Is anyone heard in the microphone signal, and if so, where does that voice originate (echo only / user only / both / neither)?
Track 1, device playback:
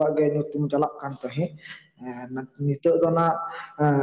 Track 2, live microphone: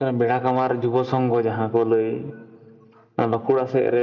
user only